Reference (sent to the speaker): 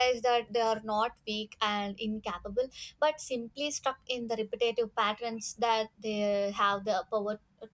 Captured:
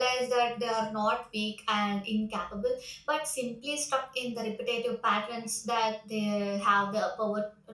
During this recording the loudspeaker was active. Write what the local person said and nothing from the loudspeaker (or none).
none